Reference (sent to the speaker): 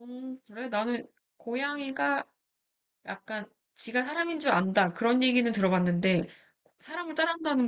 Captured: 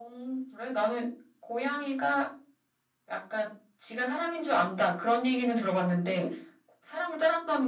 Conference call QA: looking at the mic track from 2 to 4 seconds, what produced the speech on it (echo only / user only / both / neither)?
echo only